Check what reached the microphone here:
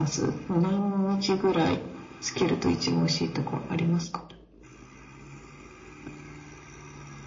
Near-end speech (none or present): none